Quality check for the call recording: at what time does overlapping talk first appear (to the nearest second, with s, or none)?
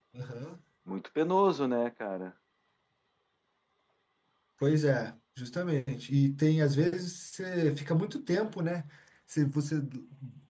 none